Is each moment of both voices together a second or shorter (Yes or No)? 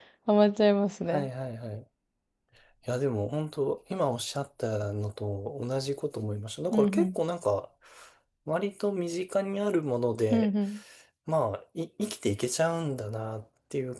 Yes